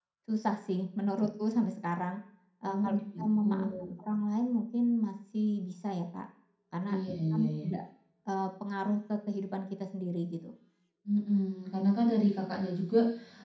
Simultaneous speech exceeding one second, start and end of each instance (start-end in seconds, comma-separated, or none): 2.7-3.9